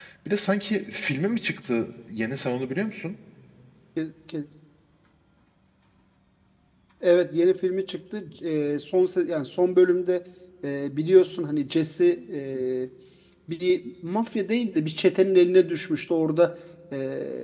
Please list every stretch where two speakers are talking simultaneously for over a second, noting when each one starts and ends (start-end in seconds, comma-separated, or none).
none